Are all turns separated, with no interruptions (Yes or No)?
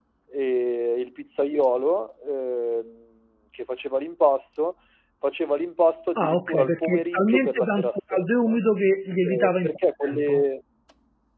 No